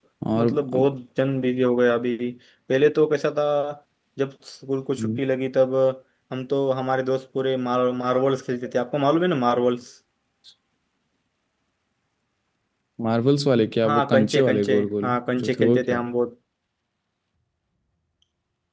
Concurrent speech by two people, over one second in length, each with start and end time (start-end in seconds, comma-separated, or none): 13.8-16.0